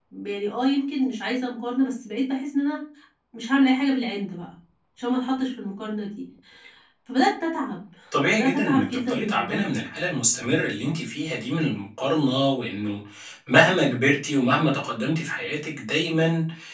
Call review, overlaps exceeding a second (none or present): present